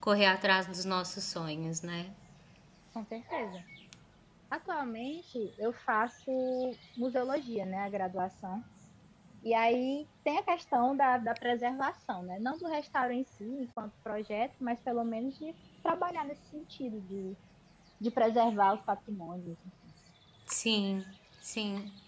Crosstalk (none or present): none